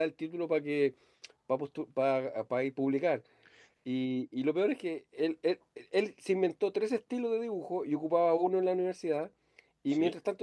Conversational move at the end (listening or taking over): listening